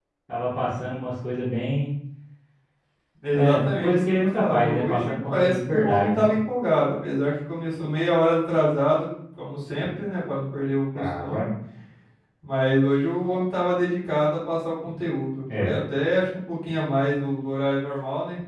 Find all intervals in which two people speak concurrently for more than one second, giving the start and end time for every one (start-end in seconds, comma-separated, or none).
3.3-6.3